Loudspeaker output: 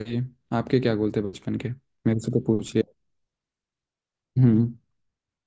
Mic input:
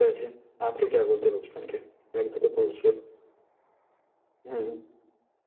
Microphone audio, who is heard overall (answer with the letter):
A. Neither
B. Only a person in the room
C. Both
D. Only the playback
D